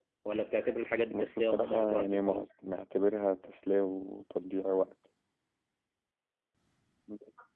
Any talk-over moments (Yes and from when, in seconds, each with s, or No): Yes, from 1.1 s